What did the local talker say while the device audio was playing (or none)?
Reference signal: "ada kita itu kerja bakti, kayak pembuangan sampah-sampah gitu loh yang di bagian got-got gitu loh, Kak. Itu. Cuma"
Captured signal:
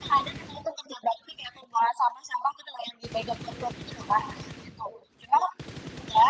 none